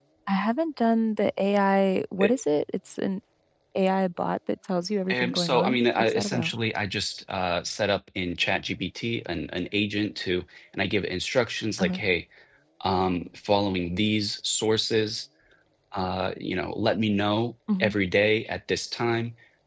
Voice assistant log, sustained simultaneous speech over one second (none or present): present